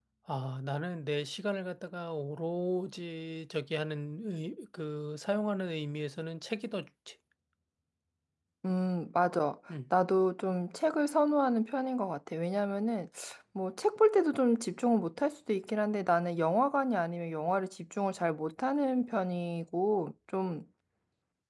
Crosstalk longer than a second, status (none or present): none